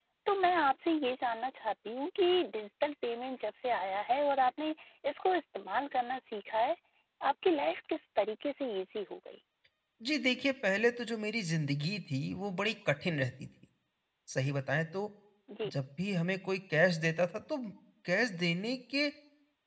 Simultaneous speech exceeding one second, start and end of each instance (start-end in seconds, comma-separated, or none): none